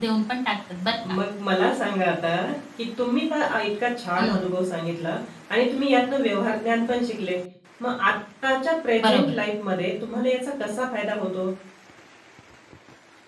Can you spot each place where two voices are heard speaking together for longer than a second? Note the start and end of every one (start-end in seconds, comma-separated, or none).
none